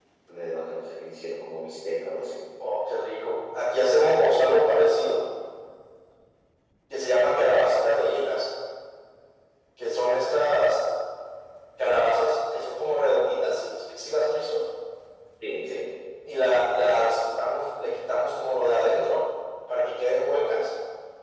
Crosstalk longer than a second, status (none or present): none